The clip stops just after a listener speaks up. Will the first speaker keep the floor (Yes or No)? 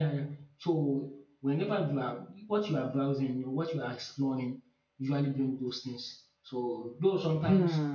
No